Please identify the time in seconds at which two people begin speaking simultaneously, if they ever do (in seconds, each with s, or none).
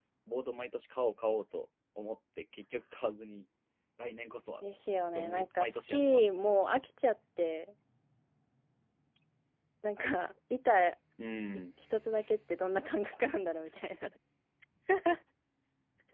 5.2 s